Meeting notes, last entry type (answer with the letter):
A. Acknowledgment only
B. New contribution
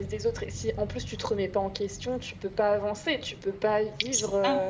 A